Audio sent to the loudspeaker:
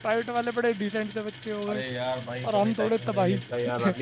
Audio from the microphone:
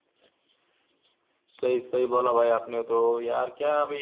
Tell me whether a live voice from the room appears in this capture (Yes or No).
Yes